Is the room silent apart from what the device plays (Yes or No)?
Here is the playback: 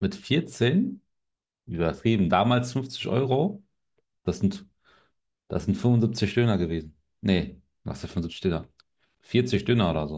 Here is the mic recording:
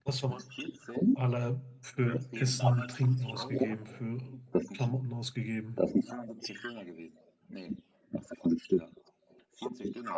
No